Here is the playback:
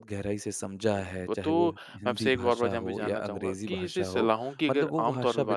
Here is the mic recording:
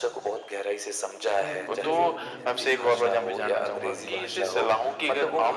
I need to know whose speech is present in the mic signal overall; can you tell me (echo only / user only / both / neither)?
both